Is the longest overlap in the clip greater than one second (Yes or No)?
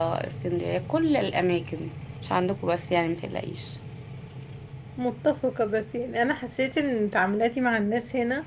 No